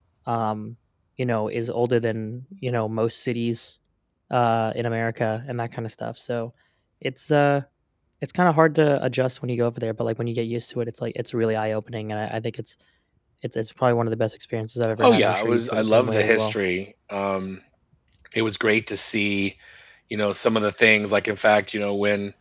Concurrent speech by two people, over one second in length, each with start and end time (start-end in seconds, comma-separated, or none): 15.0-16.6